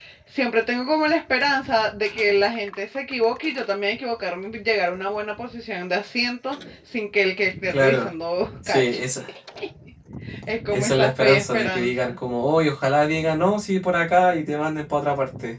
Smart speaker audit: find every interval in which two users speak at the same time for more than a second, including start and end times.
10.7-12.2

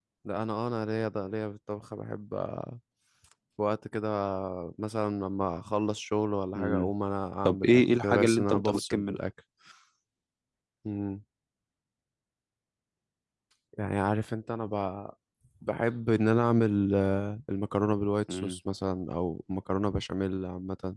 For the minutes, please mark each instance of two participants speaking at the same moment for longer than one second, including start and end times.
7.5-9.2

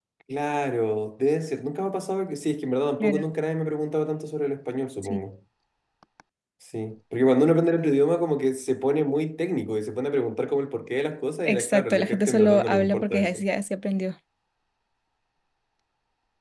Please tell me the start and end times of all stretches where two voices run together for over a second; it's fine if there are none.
11.4-13.4

